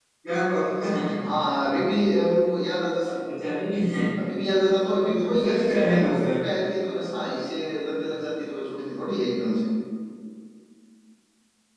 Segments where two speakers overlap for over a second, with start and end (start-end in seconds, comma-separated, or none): 5.1-6.5